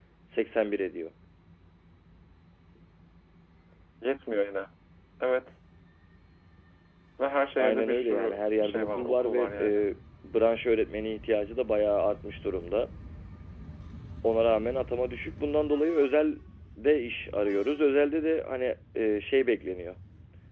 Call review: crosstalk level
present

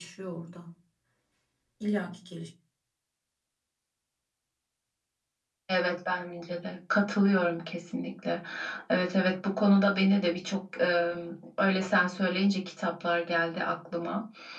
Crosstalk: none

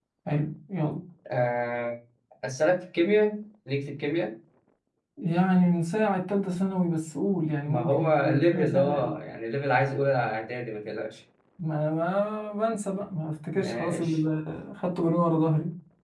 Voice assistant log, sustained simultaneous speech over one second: present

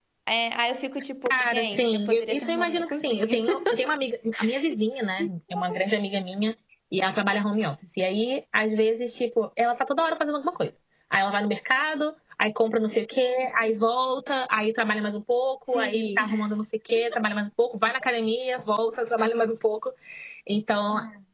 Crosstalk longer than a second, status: present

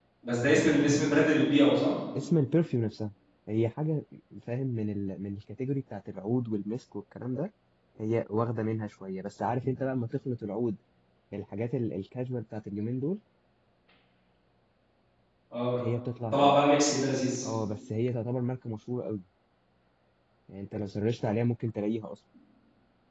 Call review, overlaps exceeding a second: none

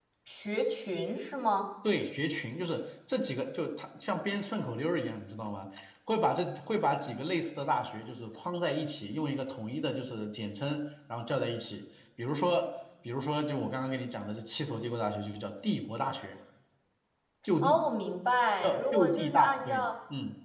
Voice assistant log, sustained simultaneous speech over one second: present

